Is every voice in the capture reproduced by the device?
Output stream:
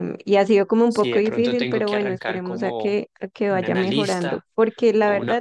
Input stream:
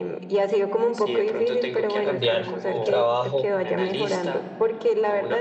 No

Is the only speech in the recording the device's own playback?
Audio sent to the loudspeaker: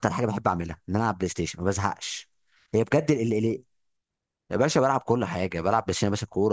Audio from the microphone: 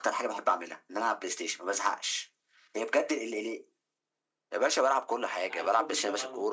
No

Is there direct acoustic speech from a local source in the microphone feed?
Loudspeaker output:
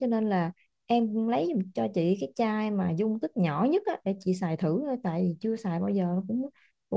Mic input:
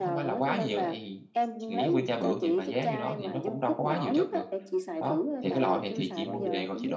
Yes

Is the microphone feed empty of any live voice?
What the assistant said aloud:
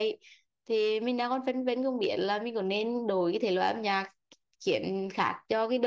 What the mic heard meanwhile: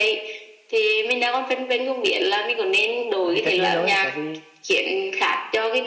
No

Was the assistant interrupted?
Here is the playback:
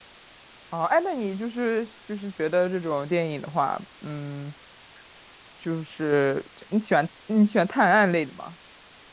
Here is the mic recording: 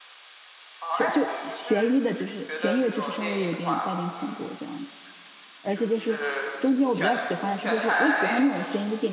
Yes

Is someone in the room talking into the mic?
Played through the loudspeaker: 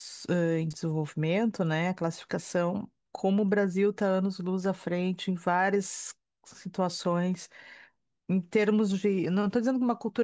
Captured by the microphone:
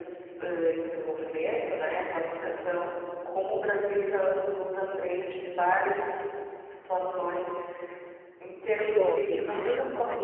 Yes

